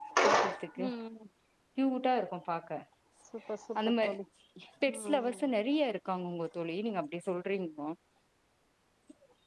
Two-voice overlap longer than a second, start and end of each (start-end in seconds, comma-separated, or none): none